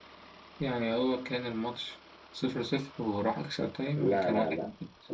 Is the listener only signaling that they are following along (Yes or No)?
No